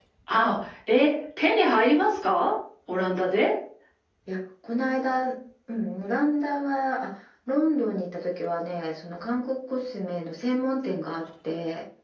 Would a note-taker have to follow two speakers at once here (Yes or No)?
No